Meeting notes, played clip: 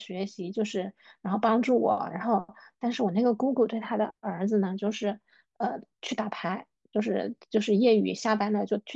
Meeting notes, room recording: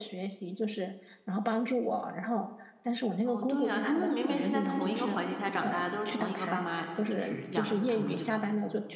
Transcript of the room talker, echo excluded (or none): 哦，对呀，他们明明是在同一个环境下长大的都是同一个爸妈就是养的他们，对吧？